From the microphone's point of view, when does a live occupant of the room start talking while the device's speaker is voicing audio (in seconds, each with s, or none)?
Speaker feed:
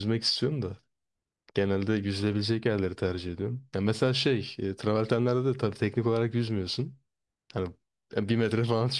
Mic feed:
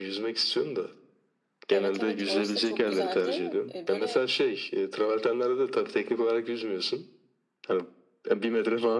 1.7 s